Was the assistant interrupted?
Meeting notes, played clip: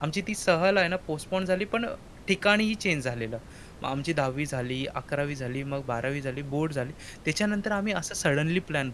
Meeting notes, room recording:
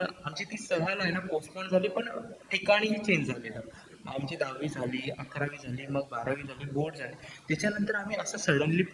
No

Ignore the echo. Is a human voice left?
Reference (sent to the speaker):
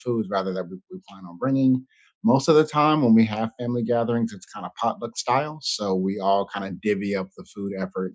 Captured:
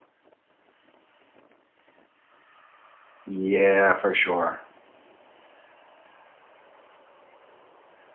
Yes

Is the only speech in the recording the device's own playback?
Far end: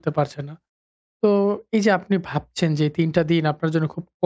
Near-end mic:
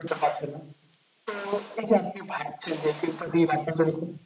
Yes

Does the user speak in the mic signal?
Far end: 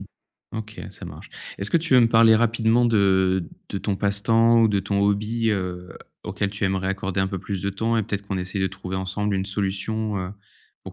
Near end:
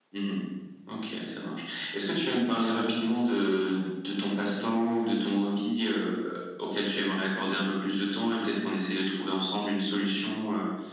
No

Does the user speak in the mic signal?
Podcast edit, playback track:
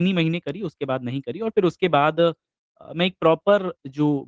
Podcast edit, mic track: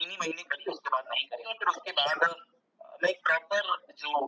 No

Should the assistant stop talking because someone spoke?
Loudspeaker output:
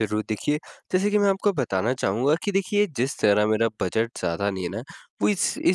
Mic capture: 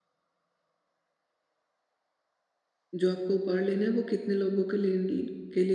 Yes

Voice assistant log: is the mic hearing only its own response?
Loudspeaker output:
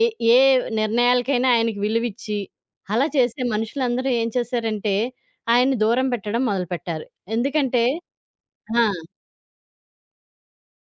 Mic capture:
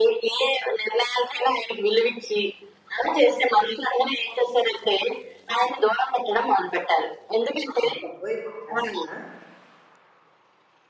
No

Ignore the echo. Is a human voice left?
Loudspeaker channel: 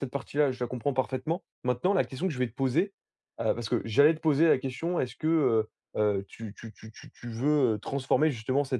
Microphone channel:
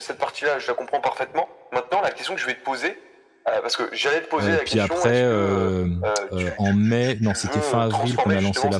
Yes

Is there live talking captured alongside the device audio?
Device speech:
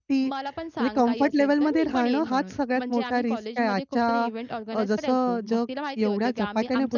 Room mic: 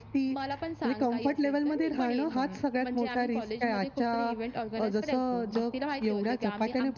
No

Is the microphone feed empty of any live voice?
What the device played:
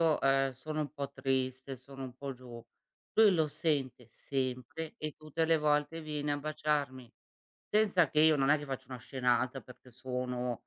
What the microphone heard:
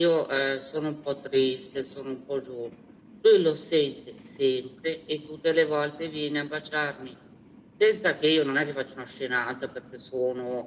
Yes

